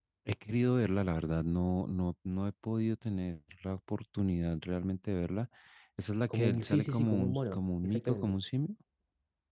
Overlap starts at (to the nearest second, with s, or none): 6 s